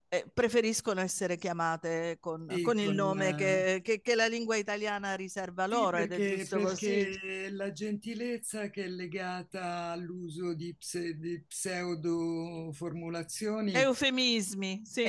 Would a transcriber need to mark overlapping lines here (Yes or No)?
Yes